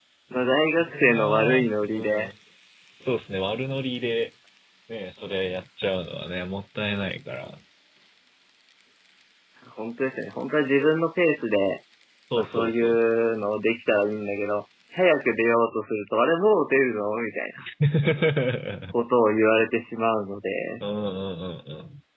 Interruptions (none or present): present